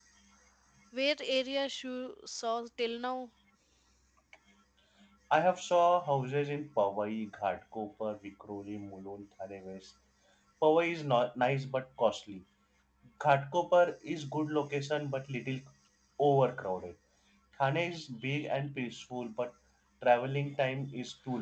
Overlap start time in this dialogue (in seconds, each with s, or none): none